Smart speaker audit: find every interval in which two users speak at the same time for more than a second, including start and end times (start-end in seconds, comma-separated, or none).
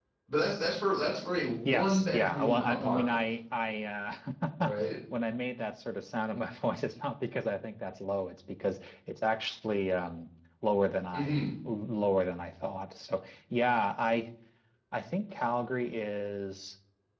1.6-3.2